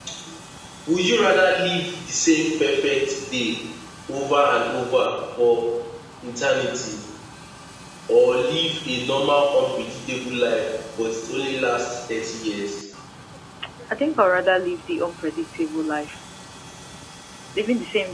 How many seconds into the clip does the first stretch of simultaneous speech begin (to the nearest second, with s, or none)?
none